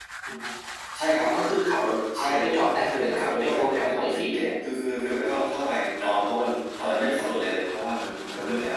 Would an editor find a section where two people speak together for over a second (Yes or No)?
Yes